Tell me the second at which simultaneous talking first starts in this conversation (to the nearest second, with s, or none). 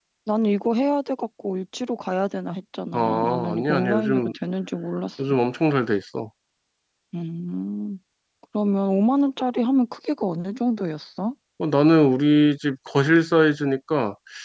3 s